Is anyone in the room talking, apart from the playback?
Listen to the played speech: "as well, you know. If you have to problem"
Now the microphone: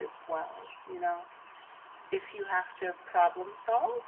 No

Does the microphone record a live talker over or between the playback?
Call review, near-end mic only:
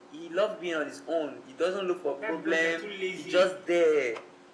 Yes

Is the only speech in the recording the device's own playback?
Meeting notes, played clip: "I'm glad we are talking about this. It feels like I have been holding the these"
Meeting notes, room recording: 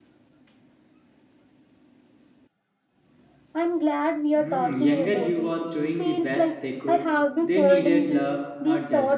No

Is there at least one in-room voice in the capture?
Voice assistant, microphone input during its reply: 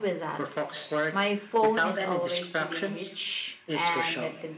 Yes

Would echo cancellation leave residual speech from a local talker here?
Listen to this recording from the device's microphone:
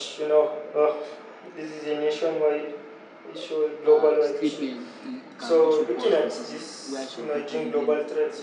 Yes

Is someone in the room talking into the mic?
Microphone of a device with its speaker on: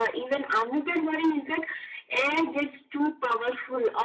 No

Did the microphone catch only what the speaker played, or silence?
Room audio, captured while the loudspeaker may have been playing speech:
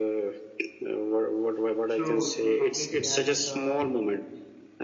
No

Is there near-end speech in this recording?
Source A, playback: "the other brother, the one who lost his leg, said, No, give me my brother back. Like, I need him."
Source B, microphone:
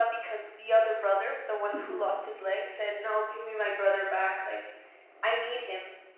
Yes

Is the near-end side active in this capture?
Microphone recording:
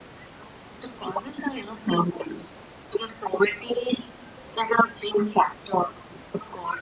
No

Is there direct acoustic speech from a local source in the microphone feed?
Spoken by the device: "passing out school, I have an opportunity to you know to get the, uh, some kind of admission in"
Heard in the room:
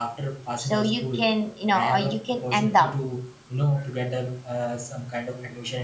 Yes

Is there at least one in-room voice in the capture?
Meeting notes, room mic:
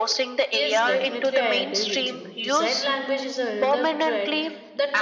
Yes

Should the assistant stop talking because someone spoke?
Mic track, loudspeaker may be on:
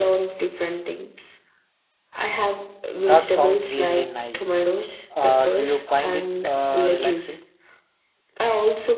Yes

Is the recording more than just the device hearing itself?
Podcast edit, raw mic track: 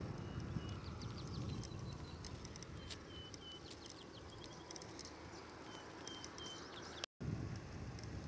No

